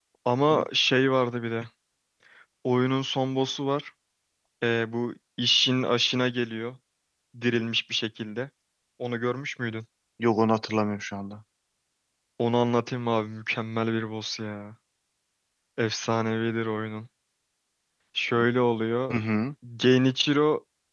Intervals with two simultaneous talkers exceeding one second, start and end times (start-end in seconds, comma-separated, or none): none